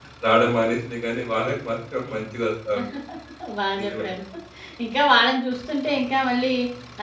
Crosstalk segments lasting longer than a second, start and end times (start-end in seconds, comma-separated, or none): none